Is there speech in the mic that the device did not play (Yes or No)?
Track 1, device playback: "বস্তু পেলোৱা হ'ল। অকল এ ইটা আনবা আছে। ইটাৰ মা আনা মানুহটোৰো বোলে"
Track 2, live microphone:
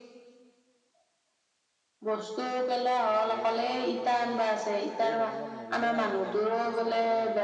Yes